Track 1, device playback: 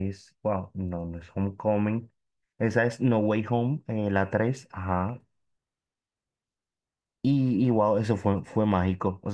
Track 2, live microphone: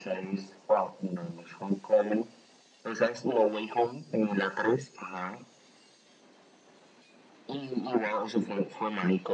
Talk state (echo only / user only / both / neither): echo only